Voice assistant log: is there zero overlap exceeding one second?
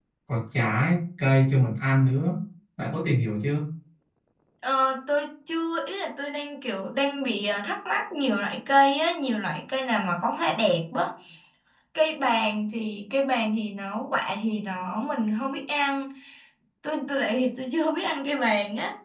Yes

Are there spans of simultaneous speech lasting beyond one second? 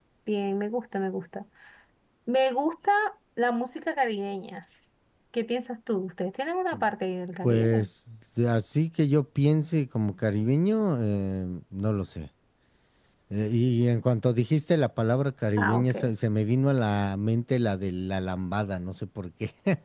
No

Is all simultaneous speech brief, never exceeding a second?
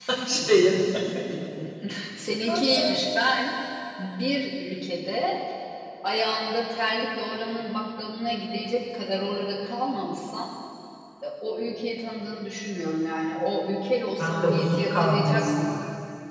No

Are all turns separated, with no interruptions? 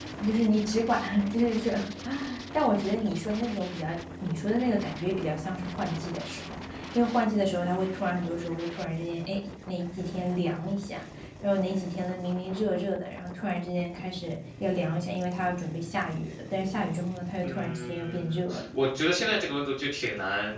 No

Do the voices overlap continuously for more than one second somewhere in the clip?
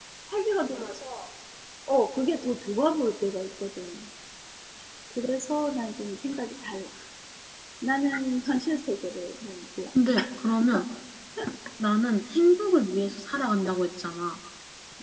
No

